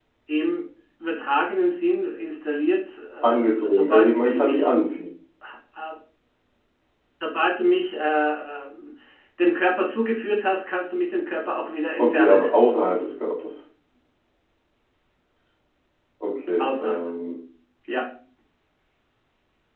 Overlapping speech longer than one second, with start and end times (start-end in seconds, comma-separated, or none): 3.2-4.7